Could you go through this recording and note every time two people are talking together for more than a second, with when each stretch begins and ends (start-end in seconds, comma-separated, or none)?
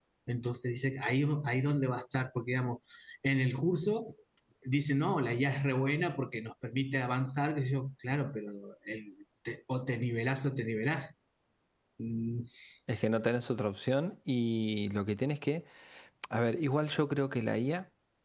none